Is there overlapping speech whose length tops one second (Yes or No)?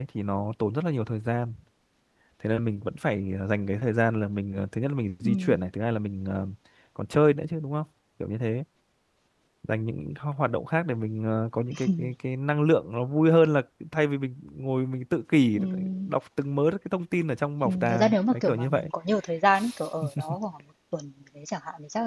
Yes